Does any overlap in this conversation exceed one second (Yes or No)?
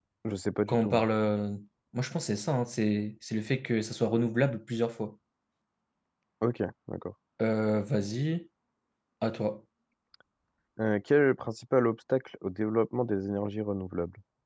No